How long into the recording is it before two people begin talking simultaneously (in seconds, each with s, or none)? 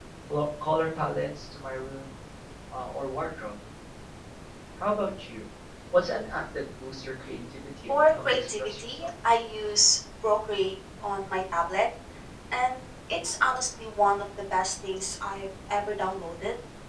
7.9 s